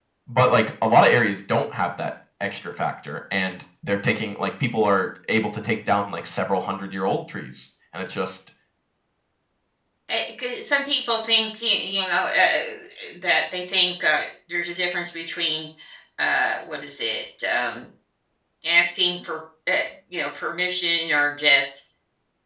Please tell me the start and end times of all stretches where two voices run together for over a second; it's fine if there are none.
none

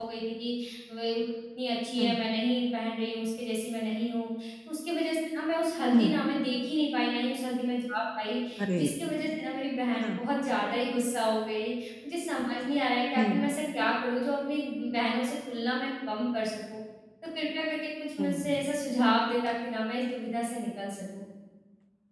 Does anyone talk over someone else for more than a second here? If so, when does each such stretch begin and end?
none

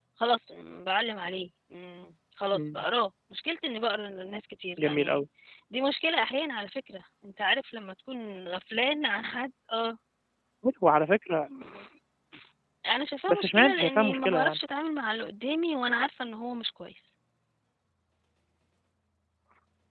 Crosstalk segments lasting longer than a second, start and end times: 13.3-14.6

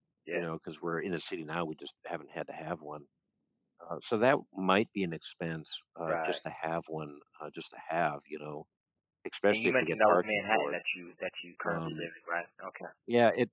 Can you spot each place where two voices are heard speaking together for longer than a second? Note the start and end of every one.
9.5-10.8

